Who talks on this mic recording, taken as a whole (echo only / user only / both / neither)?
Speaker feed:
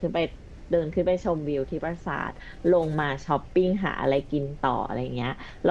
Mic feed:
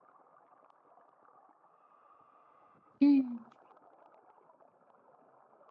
user only